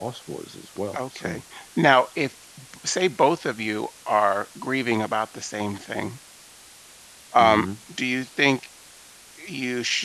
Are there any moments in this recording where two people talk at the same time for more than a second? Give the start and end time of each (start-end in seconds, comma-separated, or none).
none